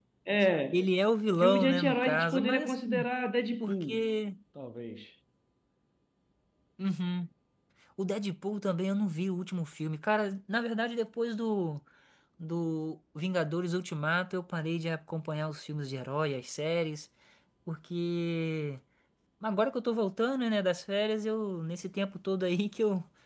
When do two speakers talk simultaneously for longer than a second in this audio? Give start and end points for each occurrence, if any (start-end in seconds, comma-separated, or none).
1.4-3.1